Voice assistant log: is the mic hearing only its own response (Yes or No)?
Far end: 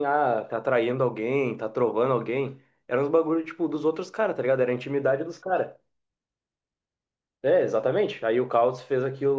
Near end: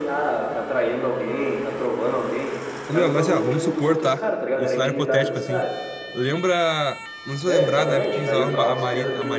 No